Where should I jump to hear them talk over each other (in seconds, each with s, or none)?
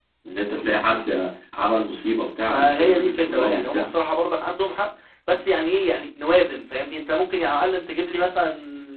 2.5 s